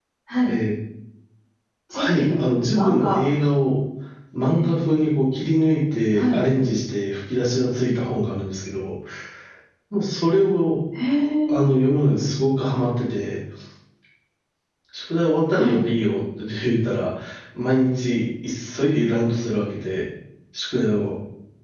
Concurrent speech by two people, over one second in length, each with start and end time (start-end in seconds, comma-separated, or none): 1.9-3.2